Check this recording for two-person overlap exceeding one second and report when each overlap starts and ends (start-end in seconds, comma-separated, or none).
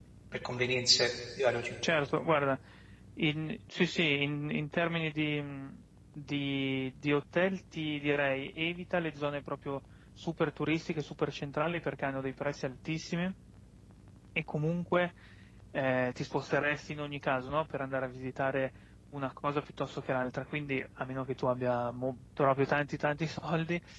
none